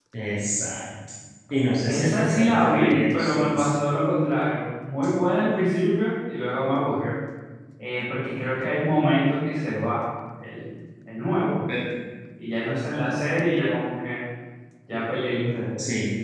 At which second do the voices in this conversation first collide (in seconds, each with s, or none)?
1.8 s